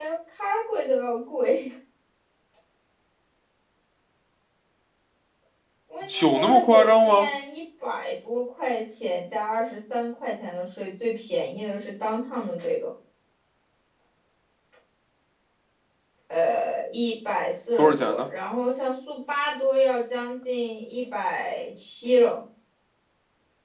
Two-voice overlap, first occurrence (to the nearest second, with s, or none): 6 s